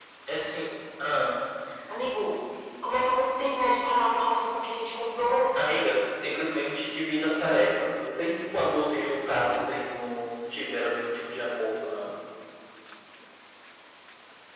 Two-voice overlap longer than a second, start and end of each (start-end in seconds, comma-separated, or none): none